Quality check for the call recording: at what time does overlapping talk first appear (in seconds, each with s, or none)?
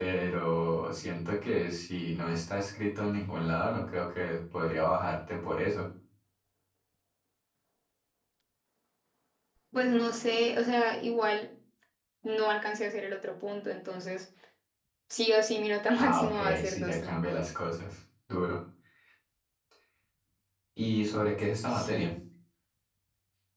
16.0 s